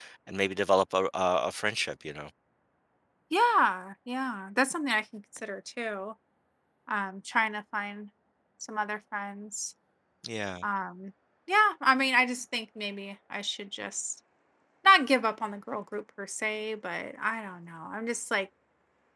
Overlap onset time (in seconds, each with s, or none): none